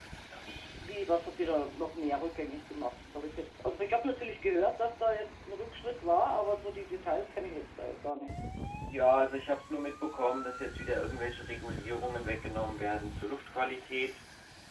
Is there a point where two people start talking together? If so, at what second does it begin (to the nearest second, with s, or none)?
none